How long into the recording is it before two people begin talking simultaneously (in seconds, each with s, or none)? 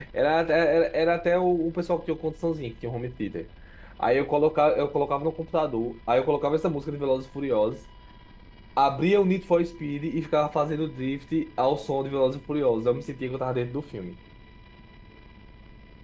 none